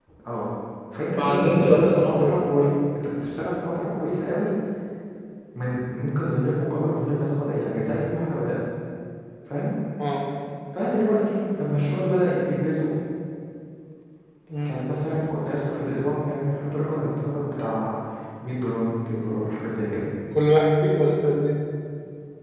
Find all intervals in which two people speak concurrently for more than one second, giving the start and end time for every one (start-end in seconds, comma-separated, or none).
1.2-2.7